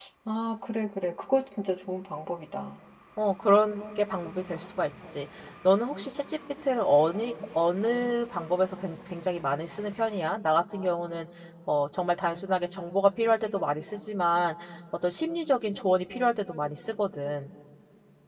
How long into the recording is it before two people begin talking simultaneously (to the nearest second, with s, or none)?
none